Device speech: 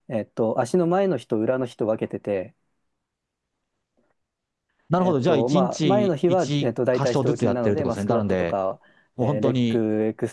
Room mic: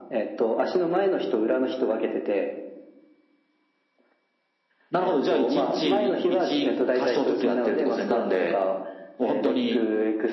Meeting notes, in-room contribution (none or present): none